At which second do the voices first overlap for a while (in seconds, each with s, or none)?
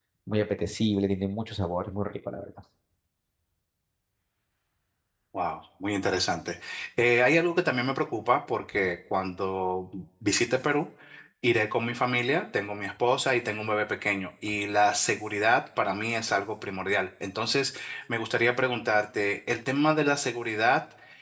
none